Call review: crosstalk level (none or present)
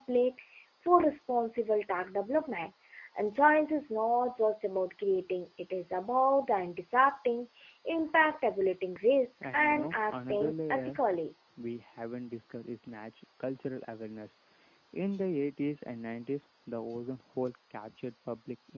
present